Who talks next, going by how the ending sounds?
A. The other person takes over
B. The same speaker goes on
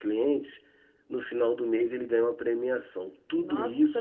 A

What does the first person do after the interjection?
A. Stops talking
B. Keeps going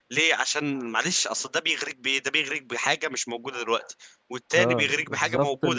A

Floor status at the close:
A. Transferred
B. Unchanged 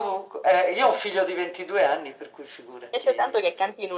A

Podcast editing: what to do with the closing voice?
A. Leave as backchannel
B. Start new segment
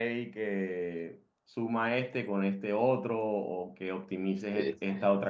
A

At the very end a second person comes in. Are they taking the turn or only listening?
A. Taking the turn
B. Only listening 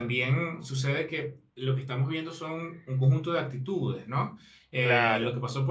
B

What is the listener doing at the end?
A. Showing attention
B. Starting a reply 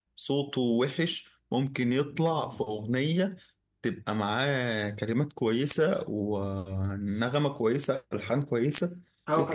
B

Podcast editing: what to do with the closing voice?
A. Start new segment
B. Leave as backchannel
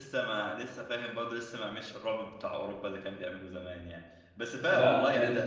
B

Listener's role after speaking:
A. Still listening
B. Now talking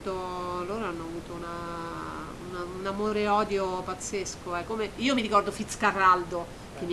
A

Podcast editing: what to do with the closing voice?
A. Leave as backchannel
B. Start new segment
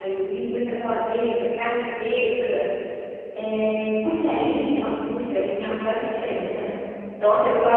A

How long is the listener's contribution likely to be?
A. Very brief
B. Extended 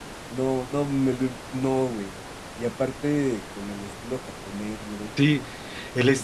B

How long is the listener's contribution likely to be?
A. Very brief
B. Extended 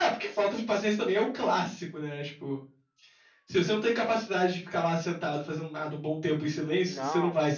B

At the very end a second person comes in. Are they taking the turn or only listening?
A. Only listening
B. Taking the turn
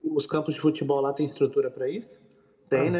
B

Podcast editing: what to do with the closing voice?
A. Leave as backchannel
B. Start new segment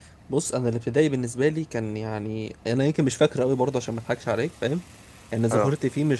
A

